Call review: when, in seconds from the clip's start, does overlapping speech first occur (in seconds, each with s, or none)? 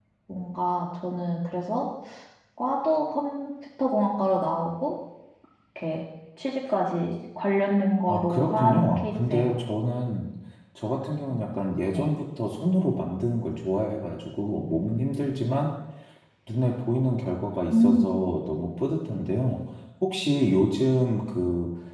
8.1 s